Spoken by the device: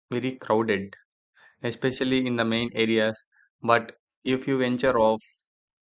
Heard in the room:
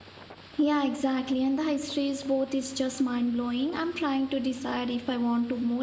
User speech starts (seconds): 1 s

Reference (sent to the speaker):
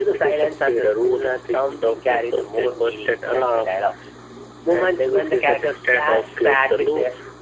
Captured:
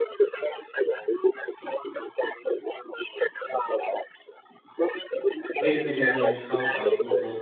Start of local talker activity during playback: 6 s

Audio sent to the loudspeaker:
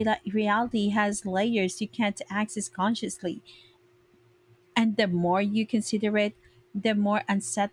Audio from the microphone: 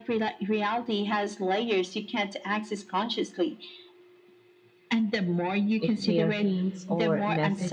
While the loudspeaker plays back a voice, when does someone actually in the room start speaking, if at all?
6 s

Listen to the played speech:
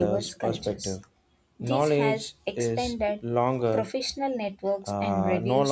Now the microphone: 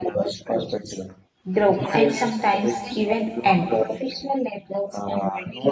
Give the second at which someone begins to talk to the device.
2 s

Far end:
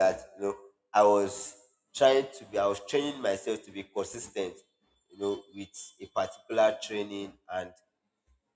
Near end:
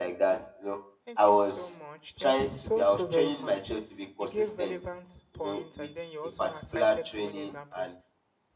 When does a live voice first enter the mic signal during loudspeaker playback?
1 s

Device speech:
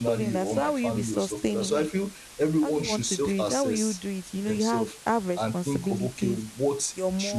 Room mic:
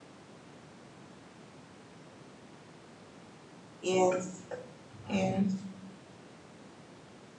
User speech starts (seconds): 4 s

